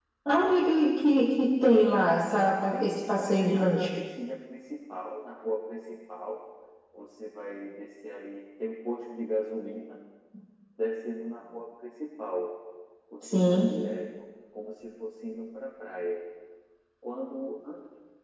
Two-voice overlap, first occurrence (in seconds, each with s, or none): 2.7 s